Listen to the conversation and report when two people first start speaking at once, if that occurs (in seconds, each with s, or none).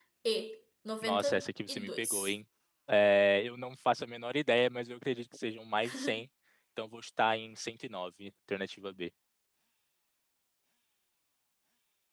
1.0 s